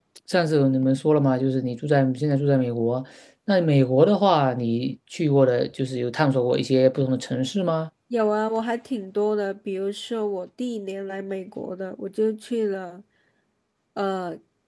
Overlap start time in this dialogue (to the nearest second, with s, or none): none